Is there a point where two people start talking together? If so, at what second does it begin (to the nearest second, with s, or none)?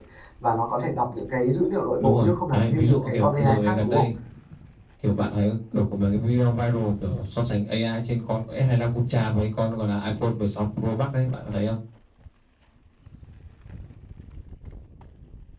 2 s